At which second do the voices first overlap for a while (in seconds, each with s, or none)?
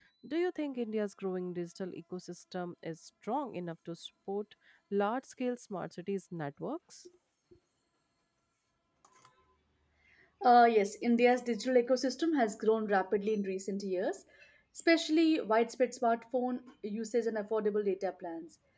none